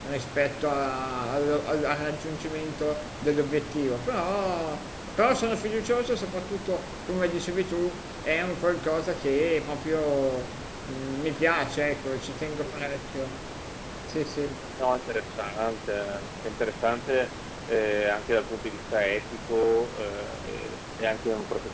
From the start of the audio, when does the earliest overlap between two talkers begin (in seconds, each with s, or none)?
none